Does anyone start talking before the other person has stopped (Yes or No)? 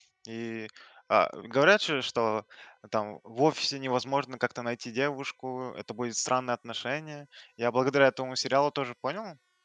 No